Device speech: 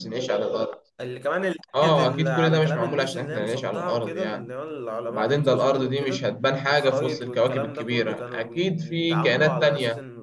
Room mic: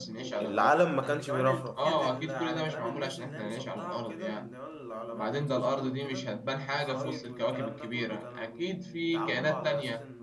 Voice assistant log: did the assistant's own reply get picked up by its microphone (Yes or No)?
Yes